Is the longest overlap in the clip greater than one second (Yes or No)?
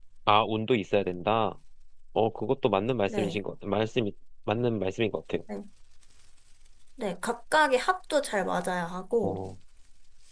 No